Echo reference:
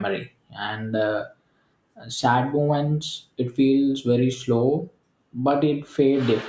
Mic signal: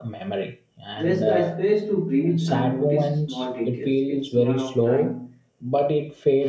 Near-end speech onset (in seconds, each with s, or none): 1.0 s